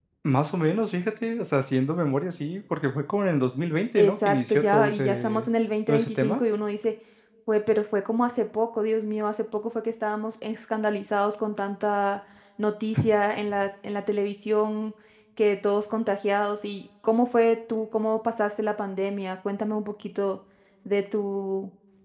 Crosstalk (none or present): present